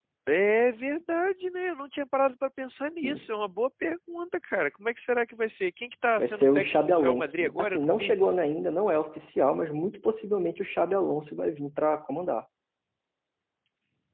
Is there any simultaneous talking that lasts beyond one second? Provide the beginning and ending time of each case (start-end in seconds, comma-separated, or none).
6.2-8.1